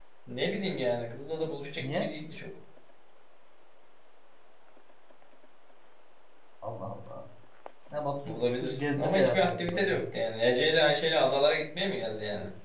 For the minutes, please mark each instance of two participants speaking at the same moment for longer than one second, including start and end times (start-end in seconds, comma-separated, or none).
8.3-10.0